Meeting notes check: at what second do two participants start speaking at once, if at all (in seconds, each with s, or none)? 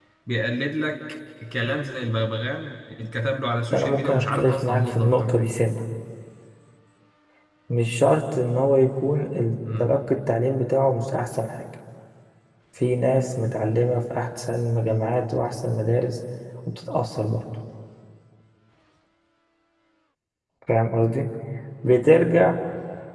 3.7 s